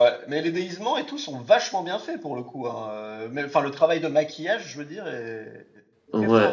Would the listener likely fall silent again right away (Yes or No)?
No